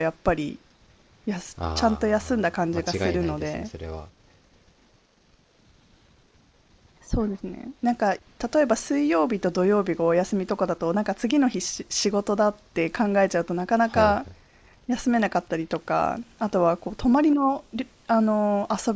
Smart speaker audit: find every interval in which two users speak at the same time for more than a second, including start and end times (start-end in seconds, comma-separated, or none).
1.6-3.7